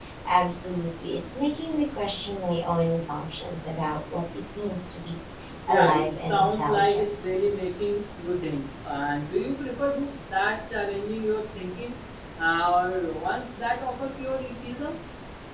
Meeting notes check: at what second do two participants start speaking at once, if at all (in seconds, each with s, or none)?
5.7 s